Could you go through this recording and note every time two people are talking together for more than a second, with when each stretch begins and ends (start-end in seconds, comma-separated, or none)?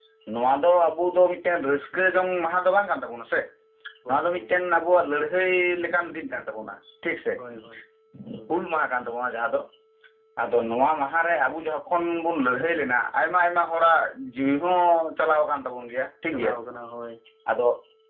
none